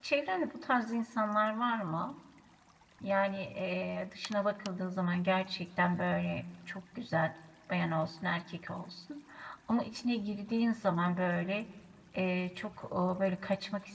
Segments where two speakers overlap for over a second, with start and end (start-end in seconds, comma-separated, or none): none